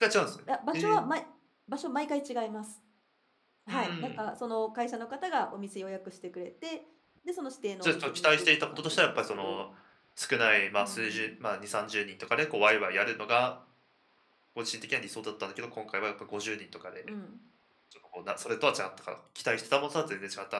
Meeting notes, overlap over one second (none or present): present